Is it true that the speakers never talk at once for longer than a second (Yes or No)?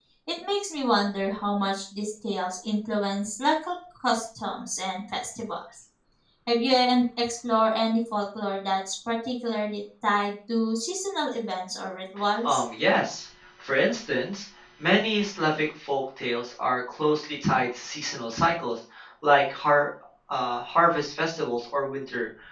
Yes